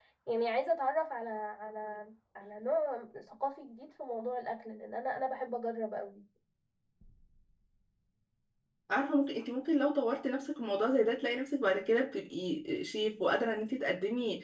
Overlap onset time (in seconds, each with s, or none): none